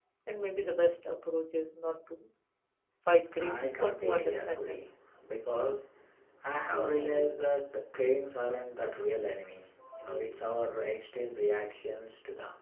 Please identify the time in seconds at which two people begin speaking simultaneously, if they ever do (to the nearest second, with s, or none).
3 s